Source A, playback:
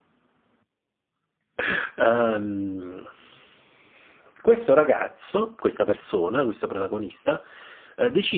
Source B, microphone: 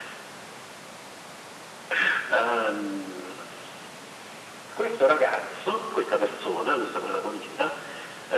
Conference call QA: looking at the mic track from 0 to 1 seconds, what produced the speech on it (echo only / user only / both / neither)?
neither